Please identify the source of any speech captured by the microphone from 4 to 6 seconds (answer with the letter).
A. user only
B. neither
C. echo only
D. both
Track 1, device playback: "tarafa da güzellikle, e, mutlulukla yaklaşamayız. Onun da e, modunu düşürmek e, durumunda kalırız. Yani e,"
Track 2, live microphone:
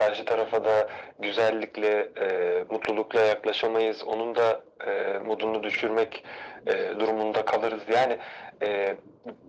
C